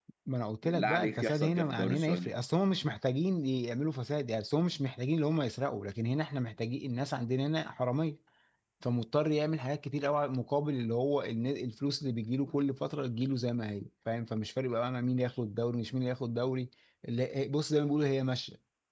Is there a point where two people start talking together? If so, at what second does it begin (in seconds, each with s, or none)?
0.6 s